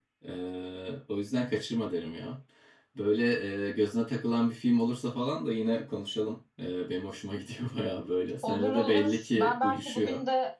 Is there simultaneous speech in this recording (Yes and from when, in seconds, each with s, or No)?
Yes, from 8.4 s